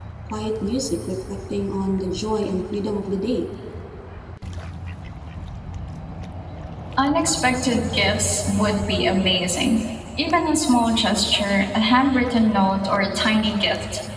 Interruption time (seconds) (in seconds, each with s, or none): none